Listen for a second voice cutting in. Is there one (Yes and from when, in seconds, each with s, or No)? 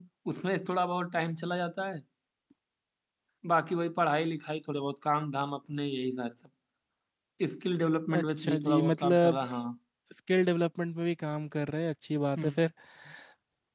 Yes, from 8.2 s